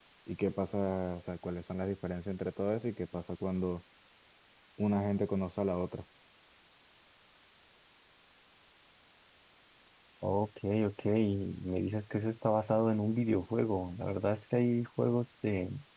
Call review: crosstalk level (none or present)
none